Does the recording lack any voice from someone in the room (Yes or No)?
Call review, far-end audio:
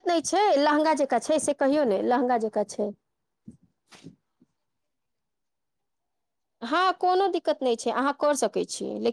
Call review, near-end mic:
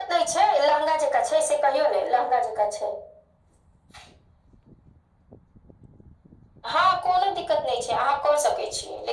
Yes